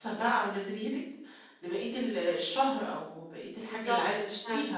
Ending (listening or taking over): listening